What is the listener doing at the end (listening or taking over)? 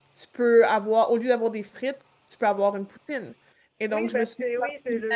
taking over